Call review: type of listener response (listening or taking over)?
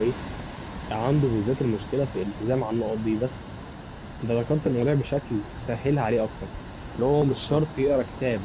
listening